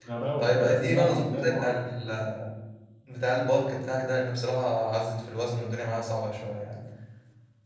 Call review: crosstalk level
present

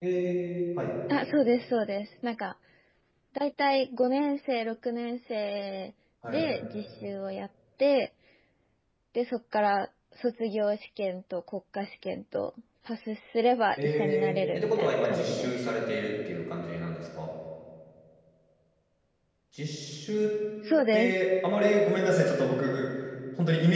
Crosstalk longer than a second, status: present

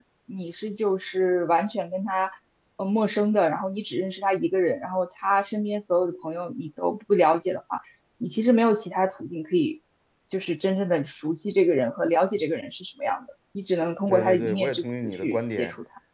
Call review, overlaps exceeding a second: present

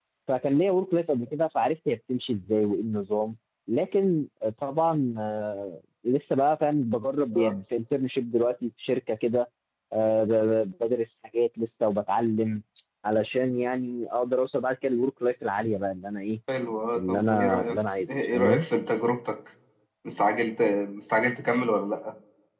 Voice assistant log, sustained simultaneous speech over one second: present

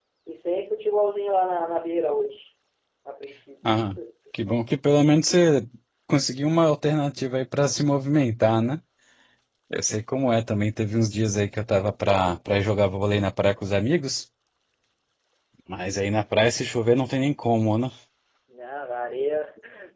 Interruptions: none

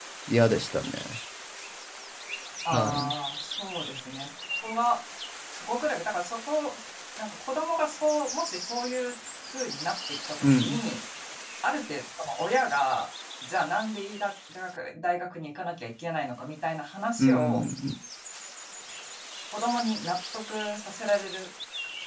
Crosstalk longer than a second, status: none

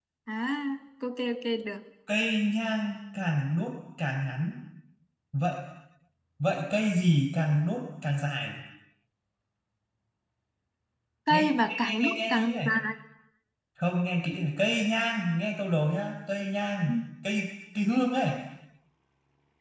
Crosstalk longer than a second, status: present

